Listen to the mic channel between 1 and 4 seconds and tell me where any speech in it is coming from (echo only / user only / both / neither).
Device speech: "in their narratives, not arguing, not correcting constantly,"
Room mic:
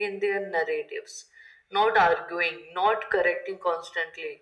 echo only